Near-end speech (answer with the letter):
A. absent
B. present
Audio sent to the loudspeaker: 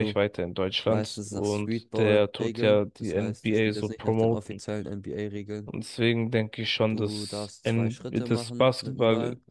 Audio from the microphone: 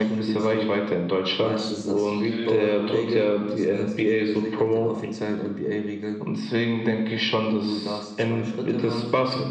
B